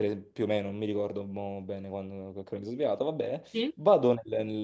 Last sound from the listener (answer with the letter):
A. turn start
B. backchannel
B